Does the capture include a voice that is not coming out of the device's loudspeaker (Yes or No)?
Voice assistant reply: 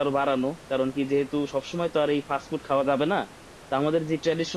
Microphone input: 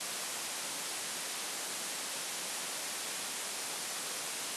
No